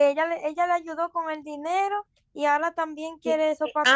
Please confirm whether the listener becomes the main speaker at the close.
Yes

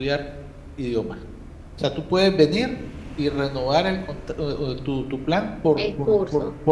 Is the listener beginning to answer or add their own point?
No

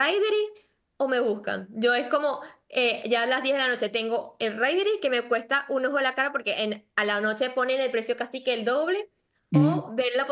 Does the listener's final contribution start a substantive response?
No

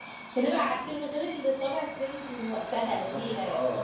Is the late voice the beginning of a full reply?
Yes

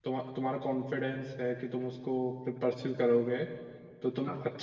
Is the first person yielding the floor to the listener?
No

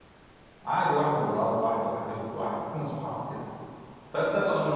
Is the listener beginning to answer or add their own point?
No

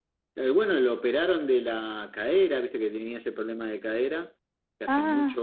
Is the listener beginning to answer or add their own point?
No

